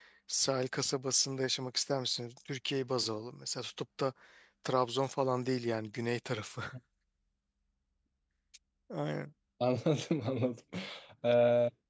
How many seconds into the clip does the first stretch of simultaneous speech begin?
none

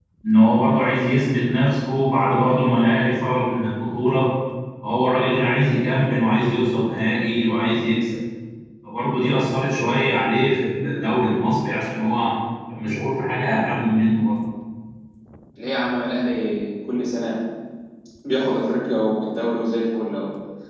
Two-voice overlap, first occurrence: none

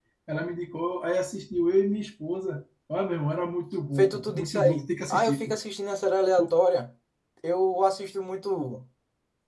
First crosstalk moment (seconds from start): 4.0 s

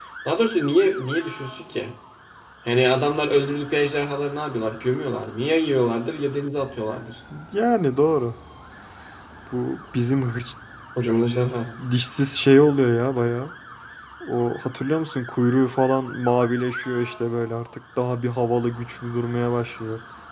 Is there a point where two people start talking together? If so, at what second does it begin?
none

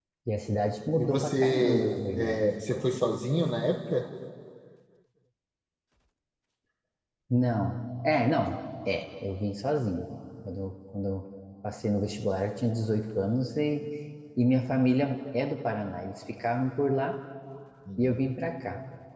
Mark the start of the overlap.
1.0 s

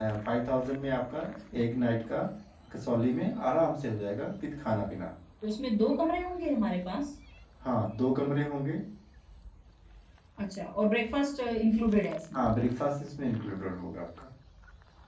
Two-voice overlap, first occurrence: none

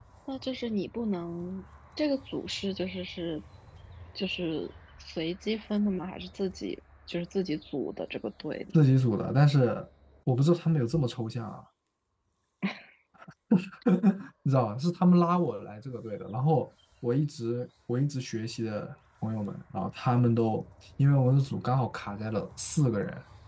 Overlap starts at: none

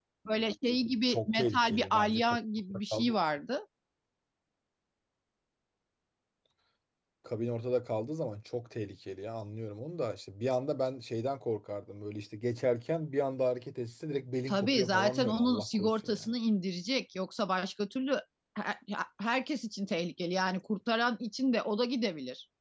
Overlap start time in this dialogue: 1.1 s

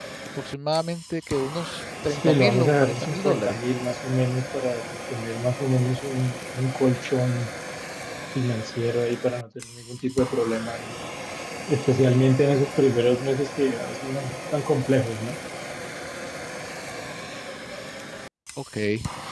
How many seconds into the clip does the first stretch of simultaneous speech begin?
2.1 s

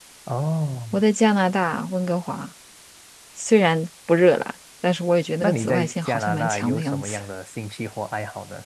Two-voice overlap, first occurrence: 5.4 s

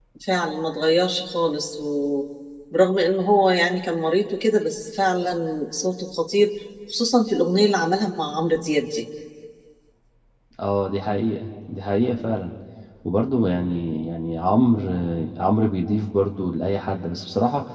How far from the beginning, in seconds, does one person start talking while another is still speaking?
none

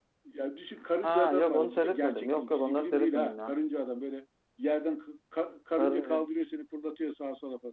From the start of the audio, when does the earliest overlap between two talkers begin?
1.0 s

